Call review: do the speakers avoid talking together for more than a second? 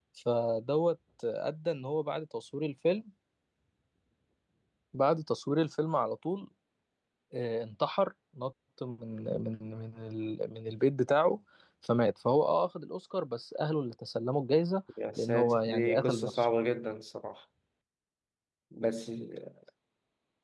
No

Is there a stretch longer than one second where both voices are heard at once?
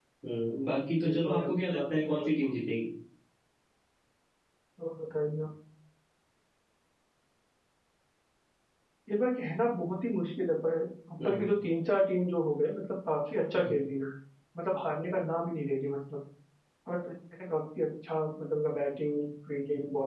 Yes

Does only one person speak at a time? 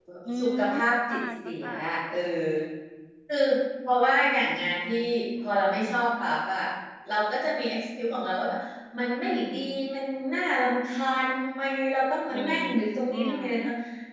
No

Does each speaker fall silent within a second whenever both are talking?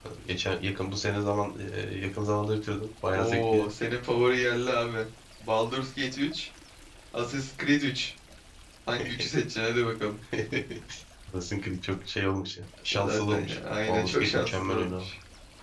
No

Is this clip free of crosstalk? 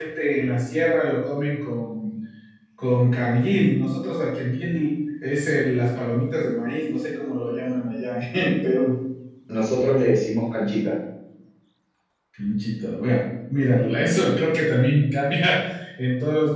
Yes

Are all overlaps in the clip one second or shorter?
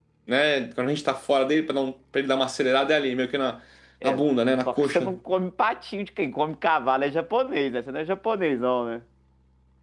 Yes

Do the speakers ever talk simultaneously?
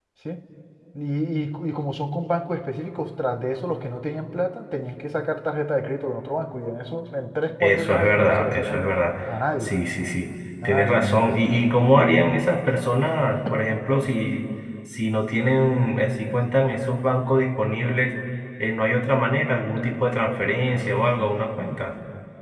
Yes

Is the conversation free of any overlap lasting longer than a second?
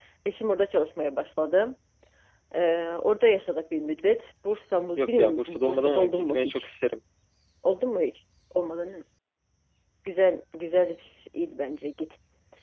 No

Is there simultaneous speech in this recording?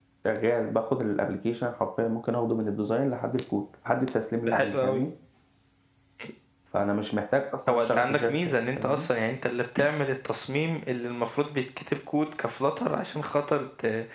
Yes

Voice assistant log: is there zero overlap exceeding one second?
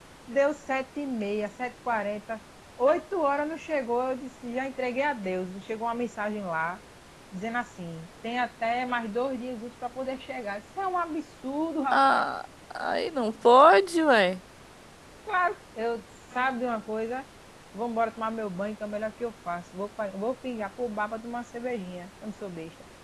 Yes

